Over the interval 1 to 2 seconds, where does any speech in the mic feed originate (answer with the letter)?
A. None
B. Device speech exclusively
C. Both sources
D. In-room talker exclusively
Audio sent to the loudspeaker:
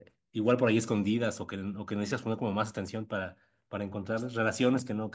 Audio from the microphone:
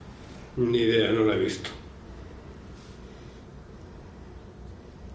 D